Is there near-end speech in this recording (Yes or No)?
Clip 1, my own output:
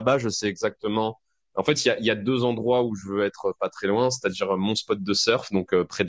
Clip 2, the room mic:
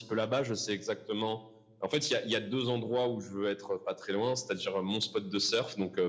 No